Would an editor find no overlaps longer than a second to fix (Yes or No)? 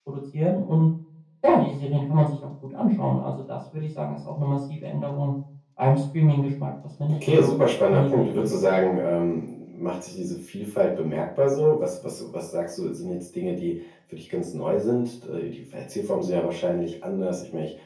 No